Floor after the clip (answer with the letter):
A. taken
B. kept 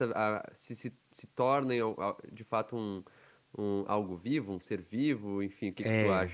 A